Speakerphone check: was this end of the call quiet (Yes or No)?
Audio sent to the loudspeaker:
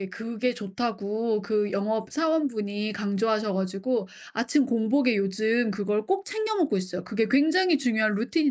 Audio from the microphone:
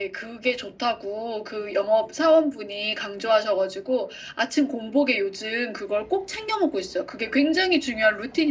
Yes